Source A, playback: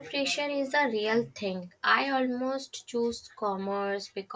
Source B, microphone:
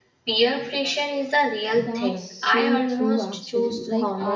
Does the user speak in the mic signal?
Yes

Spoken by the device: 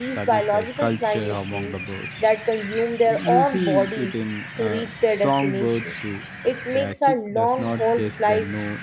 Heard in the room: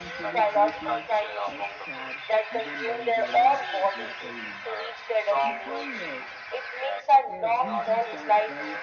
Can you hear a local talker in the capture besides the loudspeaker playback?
Yes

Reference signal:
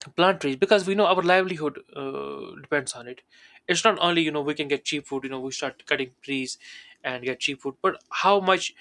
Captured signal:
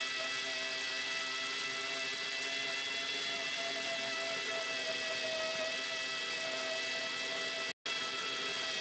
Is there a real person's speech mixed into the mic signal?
No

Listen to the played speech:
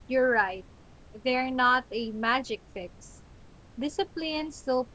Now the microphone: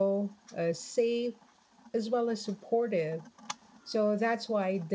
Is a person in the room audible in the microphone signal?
Yes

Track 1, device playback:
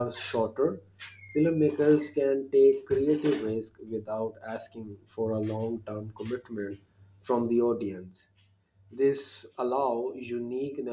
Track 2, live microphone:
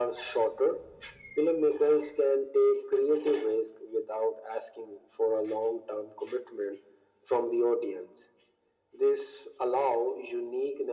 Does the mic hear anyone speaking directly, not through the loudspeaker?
No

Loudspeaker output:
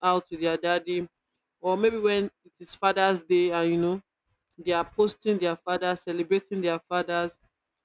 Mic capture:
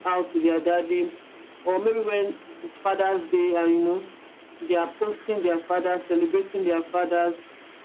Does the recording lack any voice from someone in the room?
Yes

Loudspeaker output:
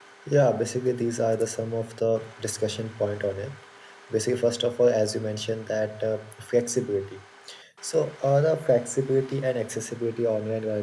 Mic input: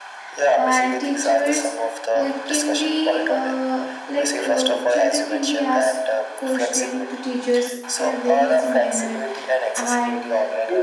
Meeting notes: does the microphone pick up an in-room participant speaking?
Yes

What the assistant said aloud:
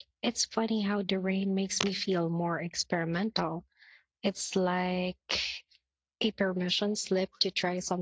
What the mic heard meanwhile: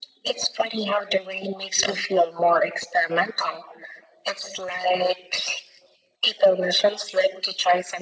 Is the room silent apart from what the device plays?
Yes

